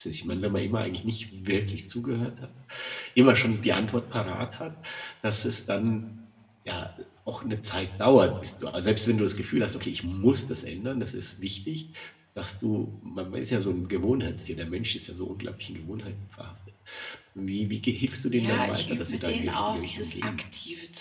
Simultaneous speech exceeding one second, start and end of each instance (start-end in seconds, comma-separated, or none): 18.2-20.3